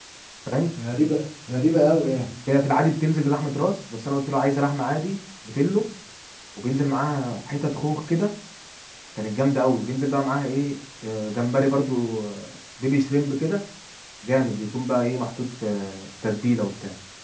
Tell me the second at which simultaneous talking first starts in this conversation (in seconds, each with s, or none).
none